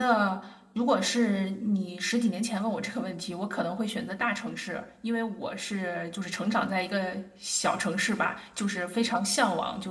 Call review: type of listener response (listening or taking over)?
listening